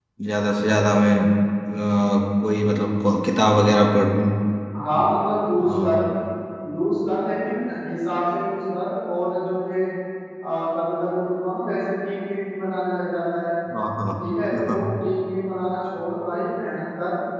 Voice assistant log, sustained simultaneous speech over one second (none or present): none